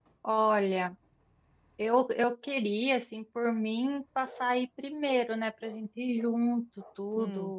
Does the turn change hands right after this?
No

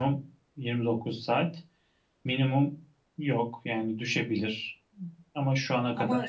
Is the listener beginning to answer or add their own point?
Yes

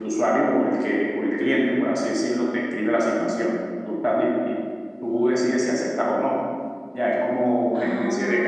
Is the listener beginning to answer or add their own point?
No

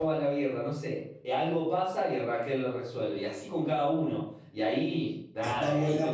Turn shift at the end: Yes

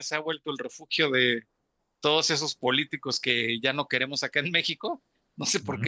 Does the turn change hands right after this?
No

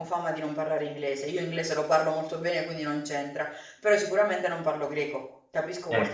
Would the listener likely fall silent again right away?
Yes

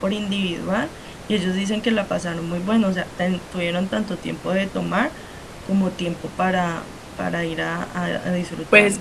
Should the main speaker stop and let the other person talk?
Yes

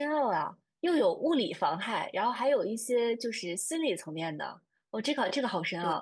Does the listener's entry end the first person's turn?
No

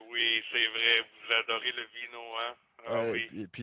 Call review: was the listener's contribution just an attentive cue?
No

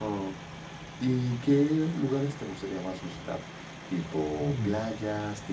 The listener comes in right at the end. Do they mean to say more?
No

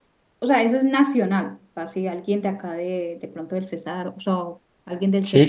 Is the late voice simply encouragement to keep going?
No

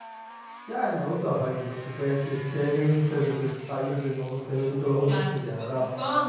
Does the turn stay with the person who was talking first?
No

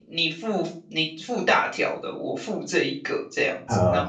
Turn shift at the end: Yes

